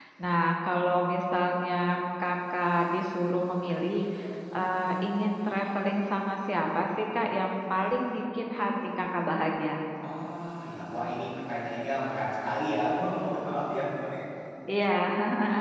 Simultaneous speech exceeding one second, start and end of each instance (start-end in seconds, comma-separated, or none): none